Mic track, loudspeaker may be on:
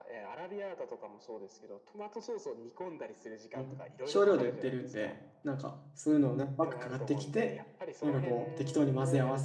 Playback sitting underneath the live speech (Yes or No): Yes